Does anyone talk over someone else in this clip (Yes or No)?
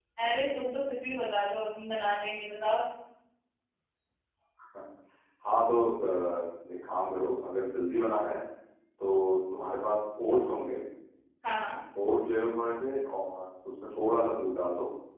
No